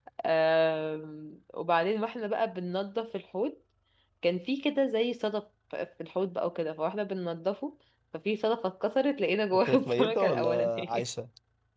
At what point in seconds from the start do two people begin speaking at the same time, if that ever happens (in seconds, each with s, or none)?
9.5 s